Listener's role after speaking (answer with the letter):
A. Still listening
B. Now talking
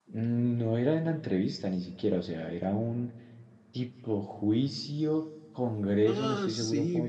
B